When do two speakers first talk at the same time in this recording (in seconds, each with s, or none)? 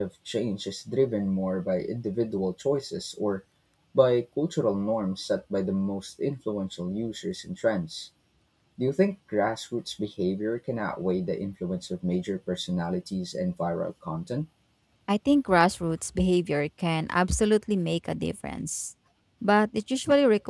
none